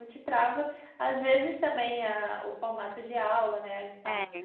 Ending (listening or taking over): listening